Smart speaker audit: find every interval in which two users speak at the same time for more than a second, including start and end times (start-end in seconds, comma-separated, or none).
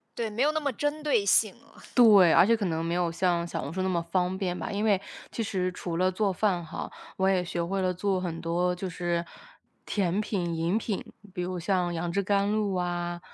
none